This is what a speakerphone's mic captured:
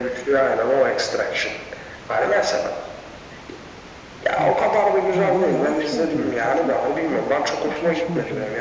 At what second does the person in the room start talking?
4.4 s

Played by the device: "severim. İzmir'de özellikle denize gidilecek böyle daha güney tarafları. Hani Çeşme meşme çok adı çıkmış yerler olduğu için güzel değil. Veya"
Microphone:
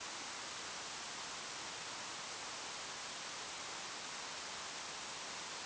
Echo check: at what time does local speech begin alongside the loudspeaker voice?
none

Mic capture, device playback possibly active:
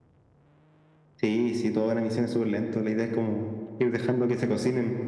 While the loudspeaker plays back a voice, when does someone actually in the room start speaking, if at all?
none

